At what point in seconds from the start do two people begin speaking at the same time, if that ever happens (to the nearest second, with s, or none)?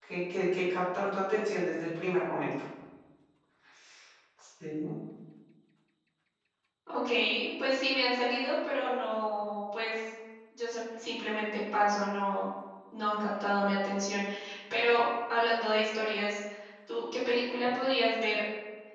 none